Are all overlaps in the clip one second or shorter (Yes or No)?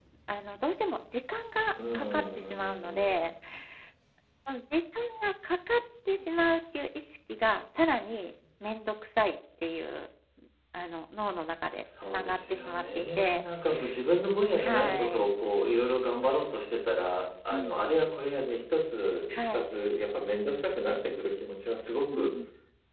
No